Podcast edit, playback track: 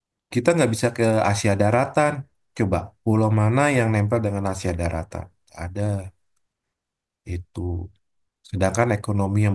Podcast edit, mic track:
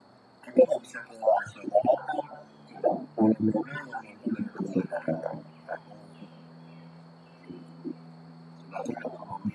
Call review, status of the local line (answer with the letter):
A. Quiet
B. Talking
A